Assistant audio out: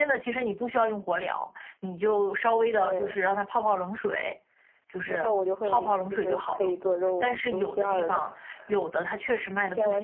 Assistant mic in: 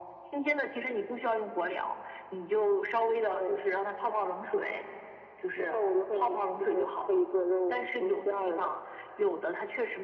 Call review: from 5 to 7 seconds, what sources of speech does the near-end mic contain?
echo only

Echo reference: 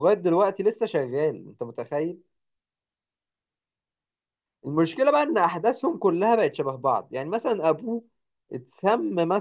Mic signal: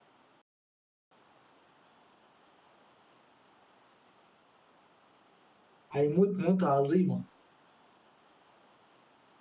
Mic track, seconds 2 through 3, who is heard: neither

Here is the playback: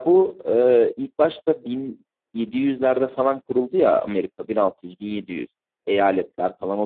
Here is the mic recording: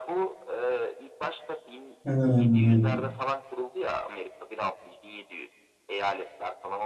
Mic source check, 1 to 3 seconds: both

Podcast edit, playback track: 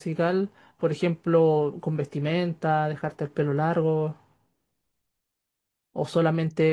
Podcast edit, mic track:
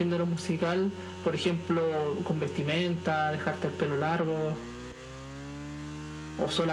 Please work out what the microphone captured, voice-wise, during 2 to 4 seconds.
echo only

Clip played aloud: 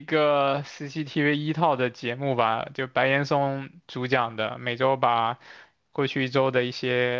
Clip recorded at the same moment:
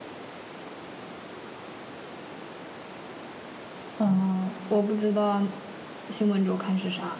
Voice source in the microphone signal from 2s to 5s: user only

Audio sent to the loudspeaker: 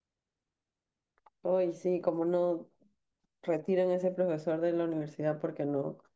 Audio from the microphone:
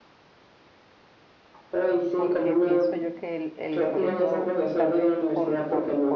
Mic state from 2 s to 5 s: both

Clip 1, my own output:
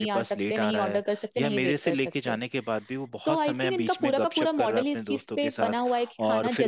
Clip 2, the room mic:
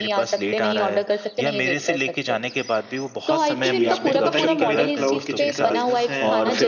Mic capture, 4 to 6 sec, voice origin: both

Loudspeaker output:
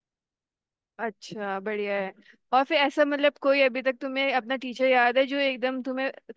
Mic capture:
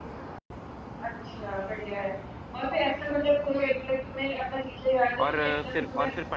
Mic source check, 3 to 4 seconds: echo only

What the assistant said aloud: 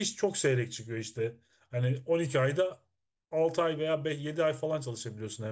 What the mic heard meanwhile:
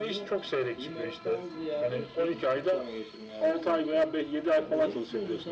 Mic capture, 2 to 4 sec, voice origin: both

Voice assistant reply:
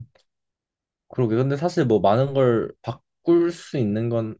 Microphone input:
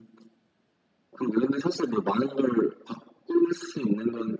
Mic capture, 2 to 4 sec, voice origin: echo only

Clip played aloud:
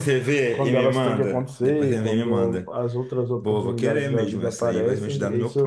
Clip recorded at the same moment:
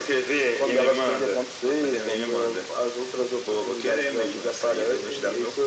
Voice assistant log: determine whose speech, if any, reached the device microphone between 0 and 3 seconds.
echo only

